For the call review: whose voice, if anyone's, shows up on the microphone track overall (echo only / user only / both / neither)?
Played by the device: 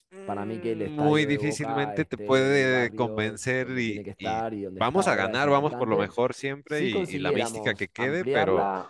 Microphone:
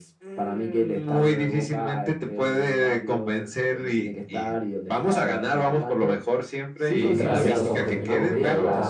both